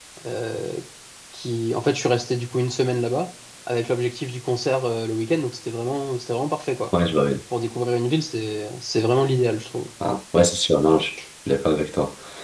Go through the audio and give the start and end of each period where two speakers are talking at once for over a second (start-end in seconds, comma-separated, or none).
none